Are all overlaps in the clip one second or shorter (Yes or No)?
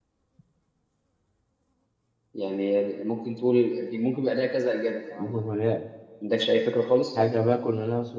Yes